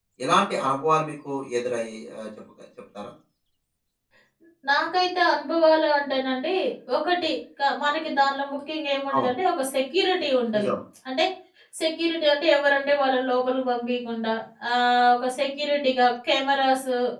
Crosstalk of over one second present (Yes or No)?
No